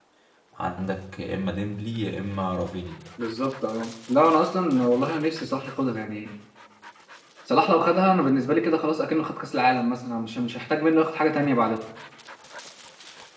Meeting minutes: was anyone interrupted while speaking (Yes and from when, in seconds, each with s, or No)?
No